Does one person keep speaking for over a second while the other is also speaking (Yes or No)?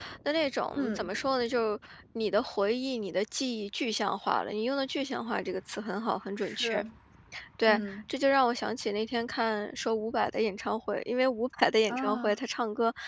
No